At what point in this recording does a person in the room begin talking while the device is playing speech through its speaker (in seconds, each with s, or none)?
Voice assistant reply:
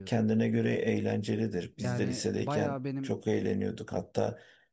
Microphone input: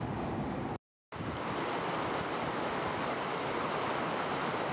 none